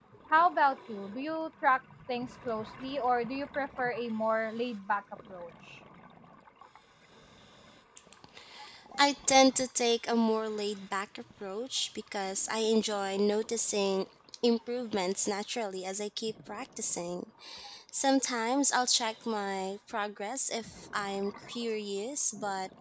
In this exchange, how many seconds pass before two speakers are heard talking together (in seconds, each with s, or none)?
none